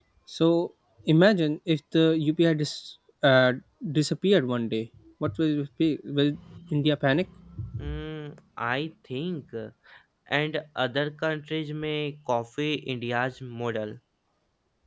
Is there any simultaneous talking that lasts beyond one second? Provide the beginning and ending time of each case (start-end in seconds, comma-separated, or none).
none